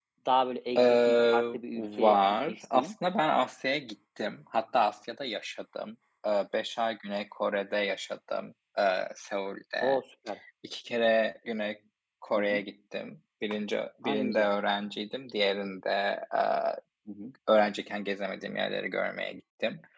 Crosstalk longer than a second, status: present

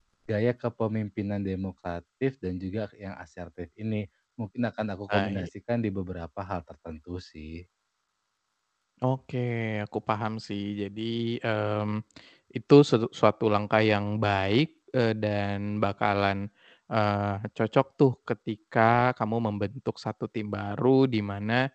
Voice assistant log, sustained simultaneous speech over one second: none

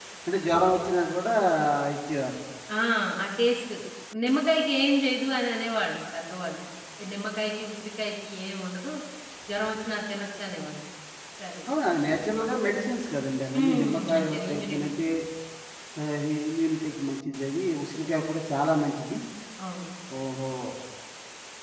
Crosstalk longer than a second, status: present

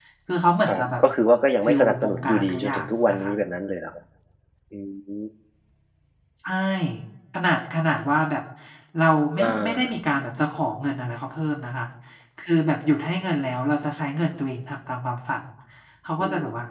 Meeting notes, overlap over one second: present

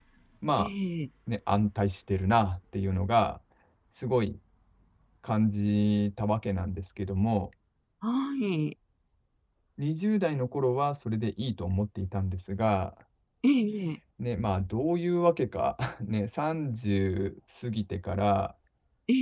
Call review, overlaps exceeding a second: none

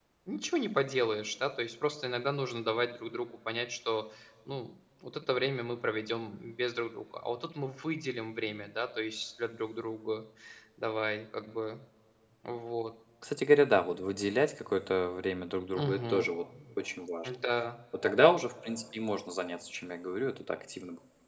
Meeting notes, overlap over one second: none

